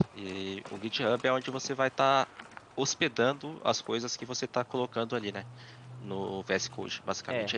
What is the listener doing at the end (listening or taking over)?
taking over